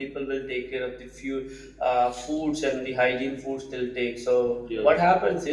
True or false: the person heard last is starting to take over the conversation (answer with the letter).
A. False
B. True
A